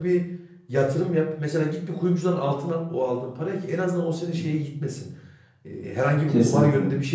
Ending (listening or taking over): listening